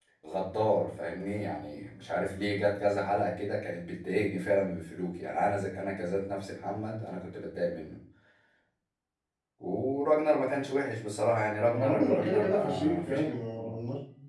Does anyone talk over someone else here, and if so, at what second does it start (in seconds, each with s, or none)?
11.6 s